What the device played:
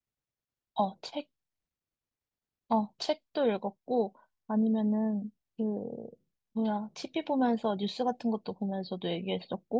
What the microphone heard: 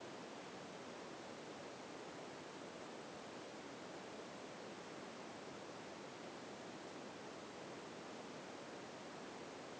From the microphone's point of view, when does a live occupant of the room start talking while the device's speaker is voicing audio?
none

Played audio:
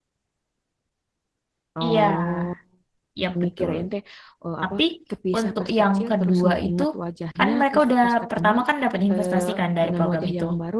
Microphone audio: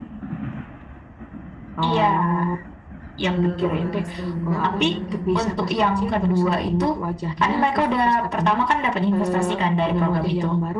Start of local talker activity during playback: 3.2 s

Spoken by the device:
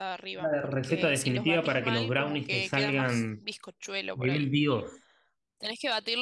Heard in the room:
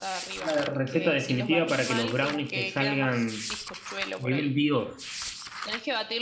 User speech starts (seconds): none

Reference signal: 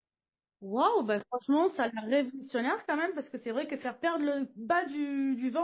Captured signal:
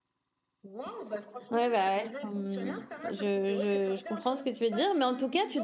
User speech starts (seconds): 1.5 s

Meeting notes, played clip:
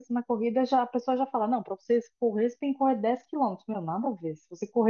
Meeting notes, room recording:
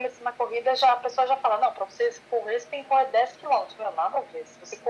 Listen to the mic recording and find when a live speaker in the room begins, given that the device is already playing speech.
none

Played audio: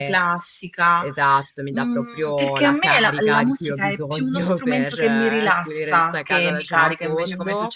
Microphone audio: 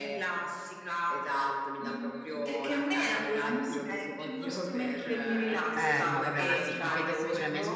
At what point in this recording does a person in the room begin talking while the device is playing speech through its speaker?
5.7 s

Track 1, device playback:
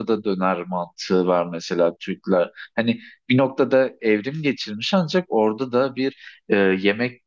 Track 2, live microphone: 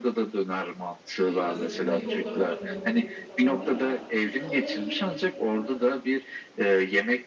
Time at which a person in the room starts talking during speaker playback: 1.2 s

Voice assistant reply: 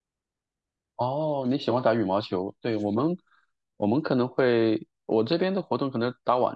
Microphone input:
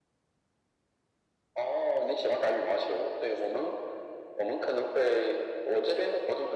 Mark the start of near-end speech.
none

